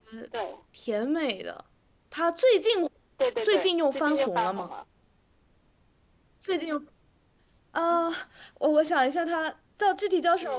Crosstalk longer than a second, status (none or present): present